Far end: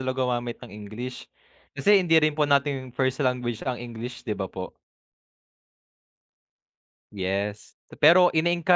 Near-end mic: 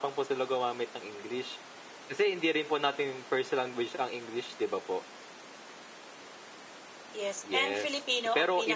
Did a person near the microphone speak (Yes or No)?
Yes